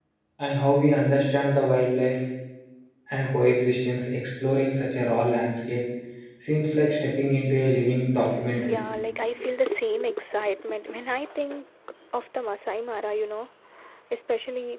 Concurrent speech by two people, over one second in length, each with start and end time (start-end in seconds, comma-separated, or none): none